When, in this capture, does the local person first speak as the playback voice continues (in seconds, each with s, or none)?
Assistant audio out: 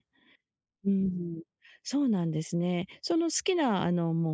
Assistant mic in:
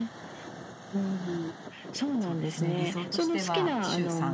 2.2 s